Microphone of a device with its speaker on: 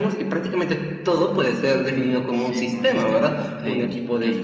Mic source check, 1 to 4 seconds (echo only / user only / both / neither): both